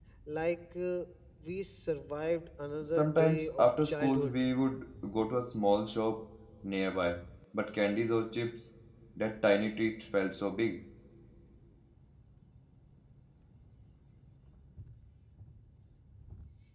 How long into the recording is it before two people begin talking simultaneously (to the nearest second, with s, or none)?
3 s